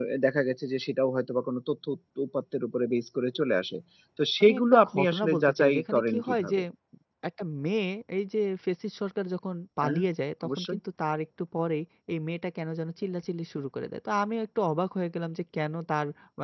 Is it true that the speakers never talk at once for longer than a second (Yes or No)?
No